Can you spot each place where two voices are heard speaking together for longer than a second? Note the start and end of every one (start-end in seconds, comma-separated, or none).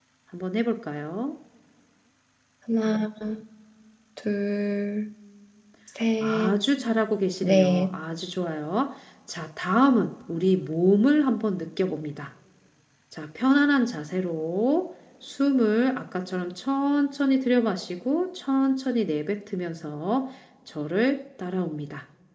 none